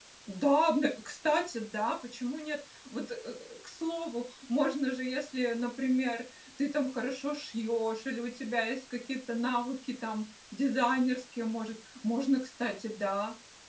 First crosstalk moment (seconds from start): none

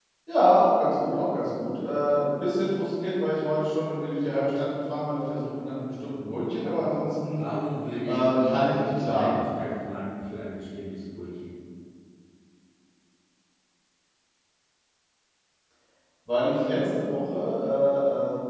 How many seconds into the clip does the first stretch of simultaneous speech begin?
8 s

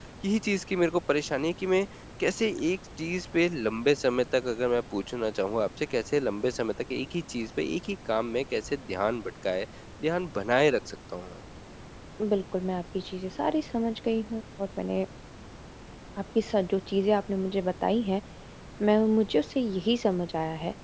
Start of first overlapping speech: none

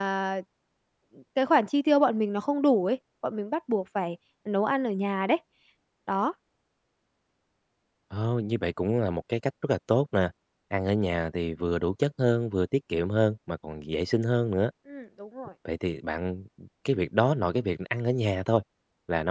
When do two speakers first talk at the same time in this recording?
none

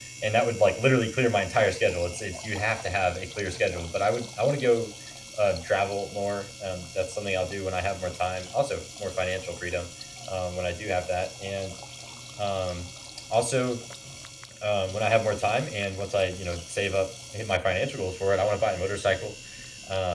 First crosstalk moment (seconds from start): none

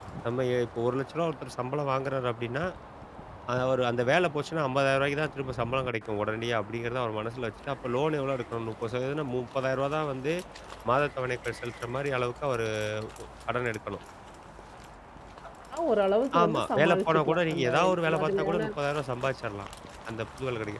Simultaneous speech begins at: 16 s

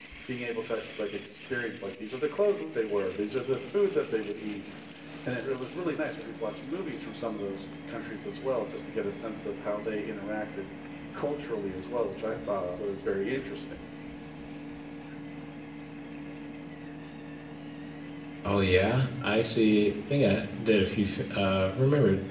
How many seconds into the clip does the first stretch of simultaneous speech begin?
none

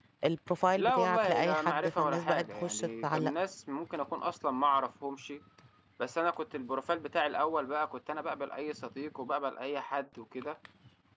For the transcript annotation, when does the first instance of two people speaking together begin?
1 s

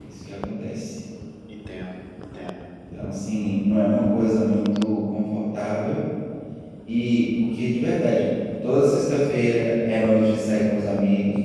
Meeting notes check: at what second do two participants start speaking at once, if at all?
none

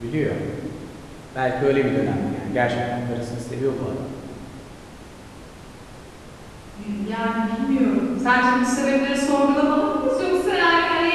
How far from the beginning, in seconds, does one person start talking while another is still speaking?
none

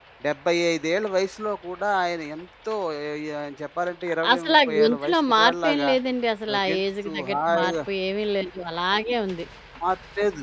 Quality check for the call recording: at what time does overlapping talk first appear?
4 s

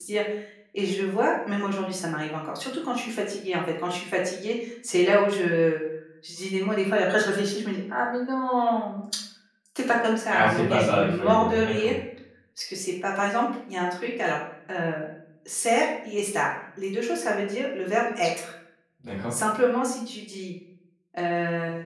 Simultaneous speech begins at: 10 s

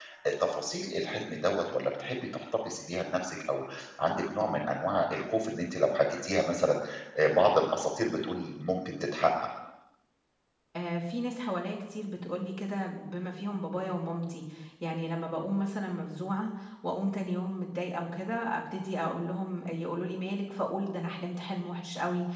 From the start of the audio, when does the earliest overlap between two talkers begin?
none

